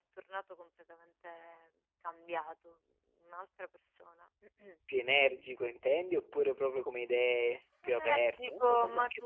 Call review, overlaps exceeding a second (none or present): present